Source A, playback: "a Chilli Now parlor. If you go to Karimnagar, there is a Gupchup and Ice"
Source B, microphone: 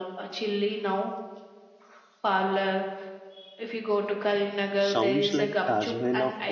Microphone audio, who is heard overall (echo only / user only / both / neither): both